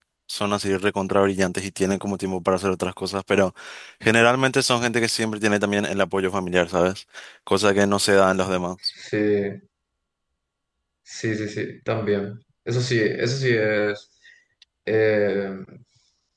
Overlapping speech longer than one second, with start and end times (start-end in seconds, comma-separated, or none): none